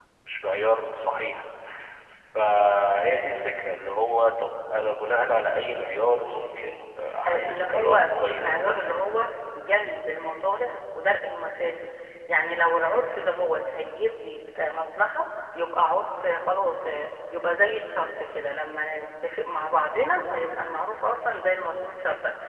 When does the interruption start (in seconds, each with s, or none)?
7.2 s